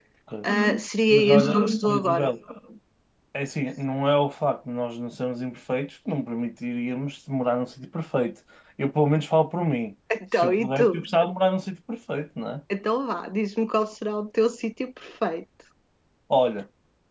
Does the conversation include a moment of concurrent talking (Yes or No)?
Yes